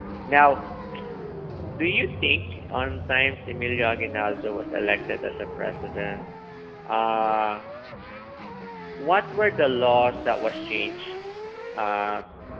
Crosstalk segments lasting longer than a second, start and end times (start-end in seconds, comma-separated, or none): none